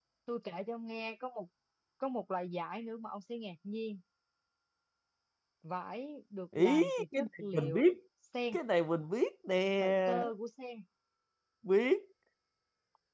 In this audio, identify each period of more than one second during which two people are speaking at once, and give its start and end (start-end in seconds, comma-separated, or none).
6.6-7.8